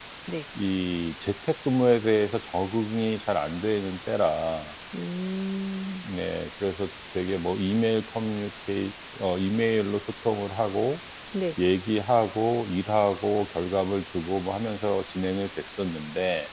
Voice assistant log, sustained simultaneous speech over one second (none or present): none